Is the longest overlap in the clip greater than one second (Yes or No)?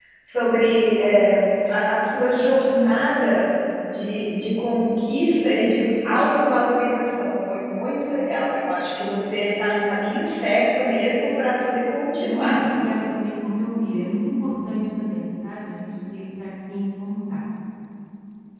No